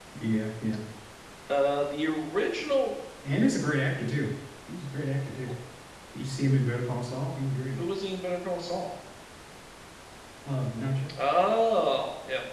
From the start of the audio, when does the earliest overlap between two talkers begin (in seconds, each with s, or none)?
none